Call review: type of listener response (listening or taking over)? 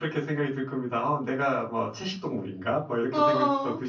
listening